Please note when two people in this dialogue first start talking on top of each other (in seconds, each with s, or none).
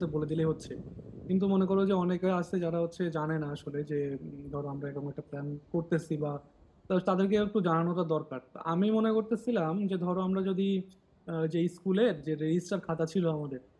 none